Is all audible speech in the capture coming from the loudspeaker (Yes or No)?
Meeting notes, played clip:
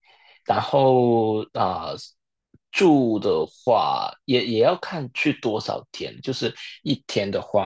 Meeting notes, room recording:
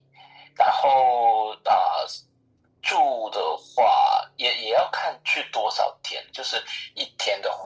Yes